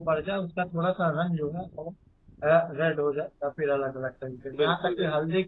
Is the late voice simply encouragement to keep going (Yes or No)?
Yes